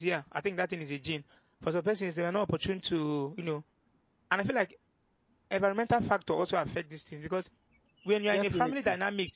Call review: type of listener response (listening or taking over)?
listening